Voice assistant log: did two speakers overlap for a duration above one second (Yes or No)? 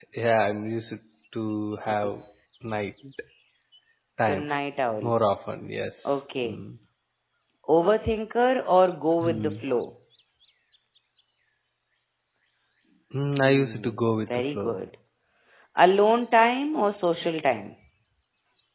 Yes